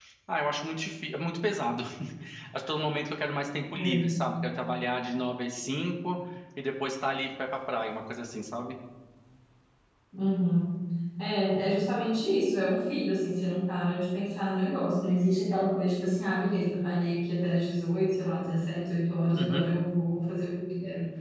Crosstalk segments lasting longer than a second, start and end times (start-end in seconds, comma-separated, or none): none